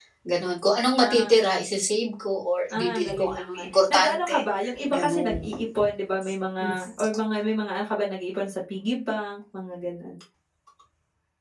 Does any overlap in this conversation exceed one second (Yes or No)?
Yes